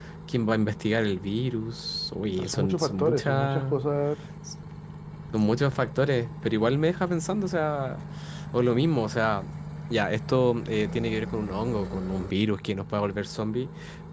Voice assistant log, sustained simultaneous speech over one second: present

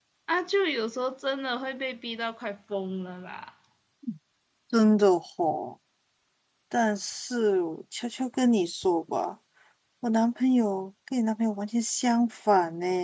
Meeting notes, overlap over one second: none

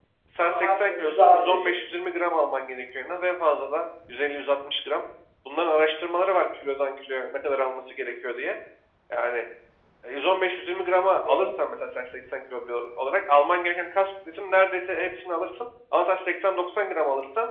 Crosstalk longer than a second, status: present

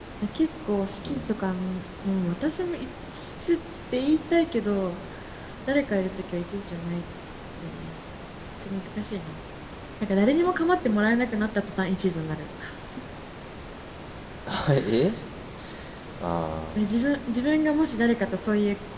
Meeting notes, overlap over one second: none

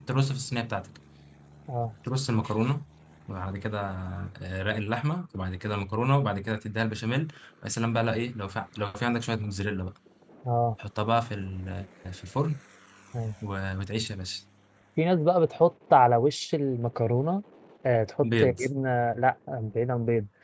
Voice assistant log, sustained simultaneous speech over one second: none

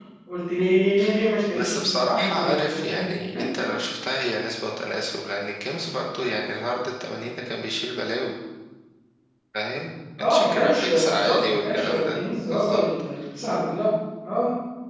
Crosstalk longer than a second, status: present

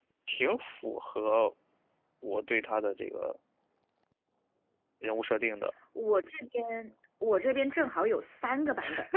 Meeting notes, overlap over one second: none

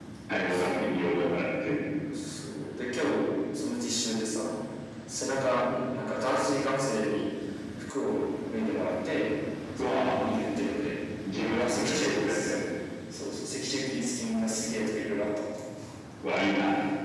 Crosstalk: present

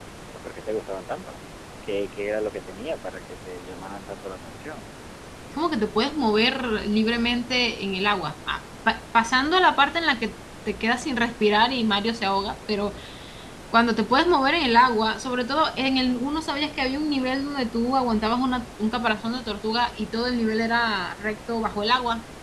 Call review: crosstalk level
none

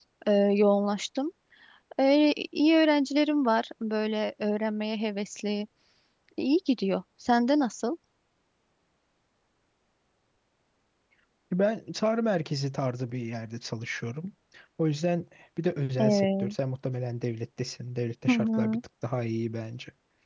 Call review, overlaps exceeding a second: none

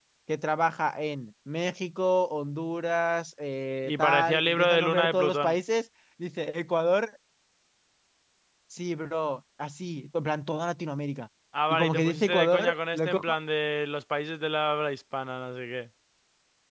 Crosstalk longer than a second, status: present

